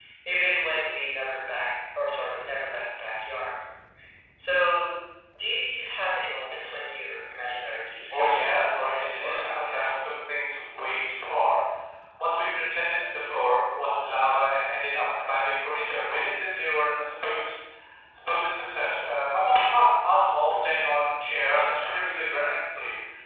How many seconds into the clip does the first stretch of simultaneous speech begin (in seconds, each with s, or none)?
8.1 s